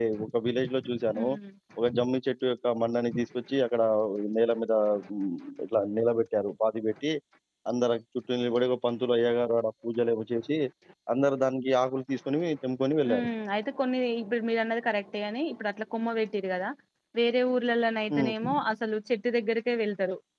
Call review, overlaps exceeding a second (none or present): none